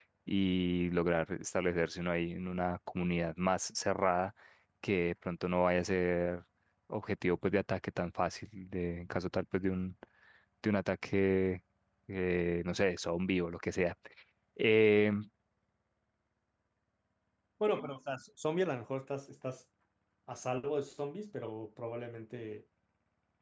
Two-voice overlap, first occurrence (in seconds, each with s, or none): none